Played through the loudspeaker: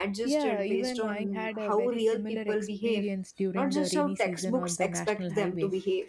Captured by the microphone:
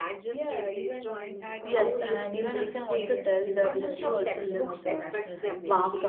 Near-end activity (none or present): present